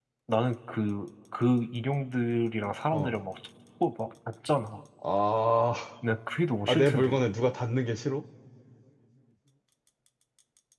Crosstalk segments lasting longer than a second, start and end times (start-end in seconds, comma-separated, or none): none